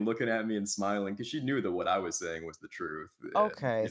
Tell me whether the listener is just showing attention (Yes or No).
No